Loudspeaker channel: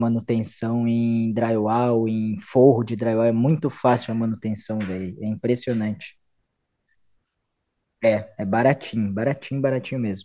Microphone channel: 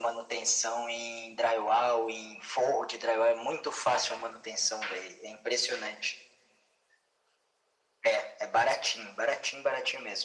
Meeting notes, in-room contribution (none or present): none